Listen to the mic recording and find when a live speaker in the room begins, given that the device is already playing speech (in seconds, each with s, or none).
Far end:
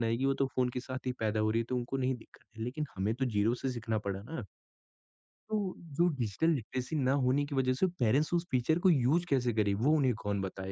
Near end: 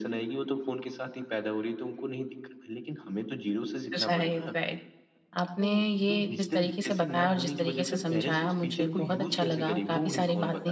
4.0 s